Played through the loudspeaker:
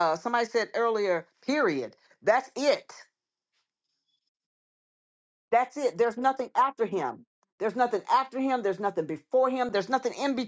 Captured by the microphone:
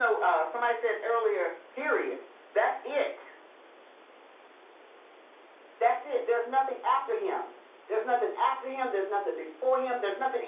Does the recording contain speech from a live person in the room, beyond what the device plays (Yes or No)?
No